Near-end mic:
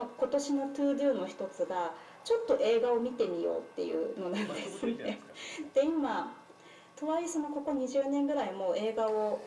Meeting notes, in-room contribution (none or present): present